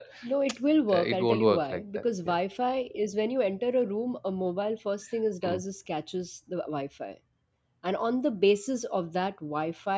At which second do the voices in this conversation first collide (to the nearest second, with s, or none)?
1 s